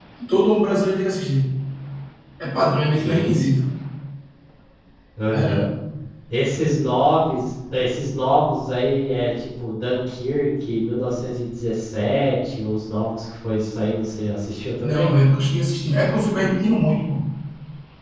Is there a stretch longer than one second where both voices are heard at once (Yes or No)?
No